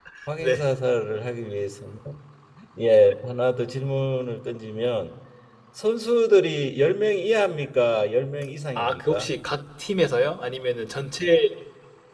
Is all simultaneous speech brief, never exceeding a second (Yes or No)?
Yes